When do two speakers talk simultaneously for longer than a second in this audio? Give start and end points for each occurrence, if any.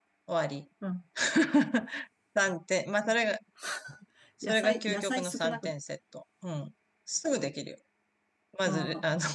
4.4-5.7

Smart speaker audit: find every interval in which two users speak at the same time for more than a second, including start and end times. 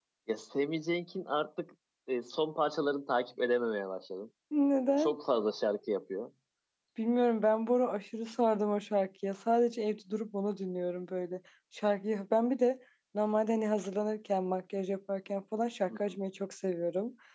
none

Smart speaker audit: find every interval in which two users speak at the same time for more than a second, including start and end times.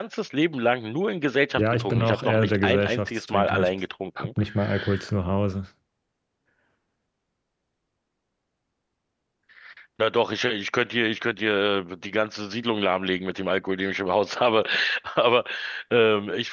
1.6-3.7

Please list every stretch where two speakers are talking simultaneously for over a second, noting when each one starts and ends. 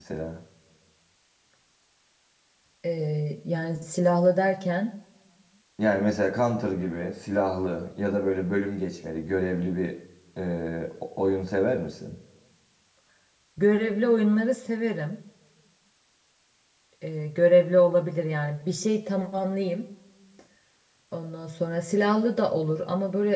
none

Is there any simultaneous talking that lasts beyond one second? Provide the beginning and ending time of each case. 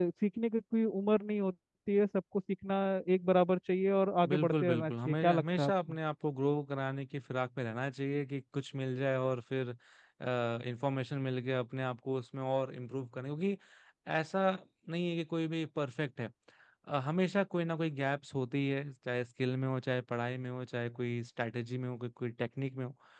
4.3-6.0

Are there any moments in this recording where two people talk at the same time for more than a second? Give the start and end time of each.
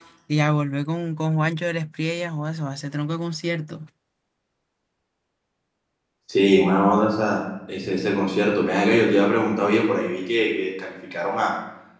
none

